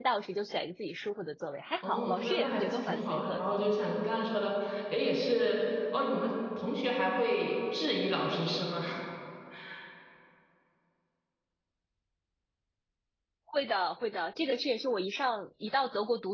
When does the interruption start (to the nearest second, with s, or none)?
2 s